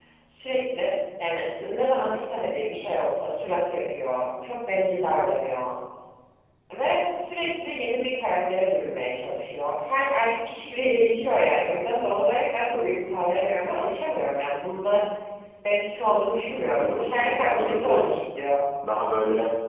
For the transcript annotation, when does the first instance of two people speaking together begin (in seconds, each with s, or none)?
16.5 s